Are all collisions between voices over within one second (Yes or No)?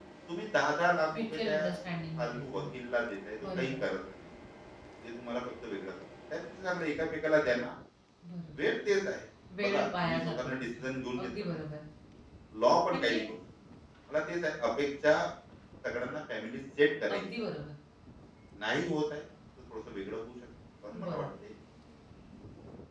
No